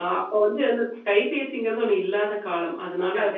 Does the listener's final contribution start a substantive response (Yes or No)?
No